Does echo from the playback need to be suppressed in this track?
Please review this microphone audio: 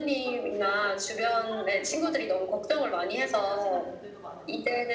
Yes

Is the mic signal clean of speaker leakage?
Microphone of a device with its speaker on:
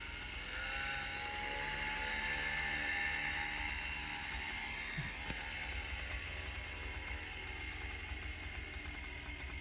Yes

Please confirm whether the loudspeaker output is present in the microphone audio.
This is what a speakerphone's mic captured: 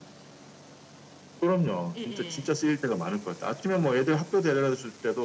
Yes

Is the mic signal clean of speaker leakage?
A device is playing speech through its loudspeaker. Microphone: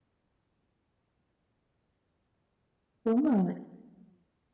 Yes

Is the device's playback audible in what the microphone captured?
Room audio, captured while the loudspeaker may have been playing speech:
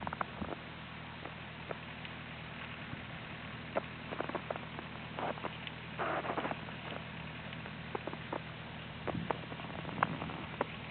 No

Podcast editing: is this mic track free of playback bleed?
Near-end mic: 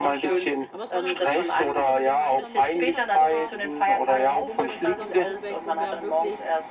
No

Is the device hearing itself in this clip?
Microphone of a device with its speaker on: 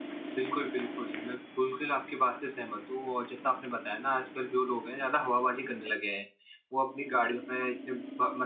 No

